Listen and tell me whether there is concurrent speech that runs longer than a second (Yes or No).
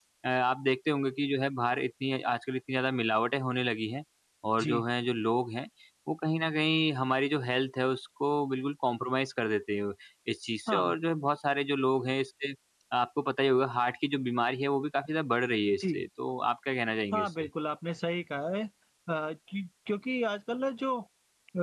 No